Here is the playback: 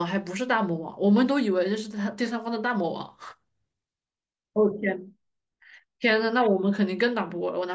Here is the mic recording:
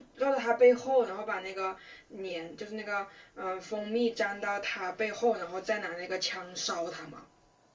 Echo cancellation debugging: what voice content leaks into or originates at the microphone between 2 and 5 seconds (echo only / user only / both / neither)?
user only